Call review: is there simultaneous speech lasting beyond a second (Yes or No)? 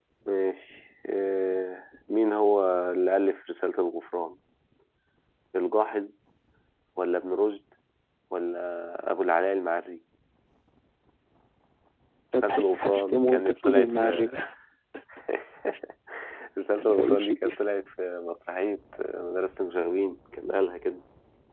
Yes